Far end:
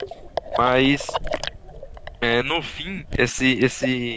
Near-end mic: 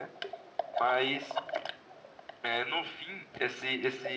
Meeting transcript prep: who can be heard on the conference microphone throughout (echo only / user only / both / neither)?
echo only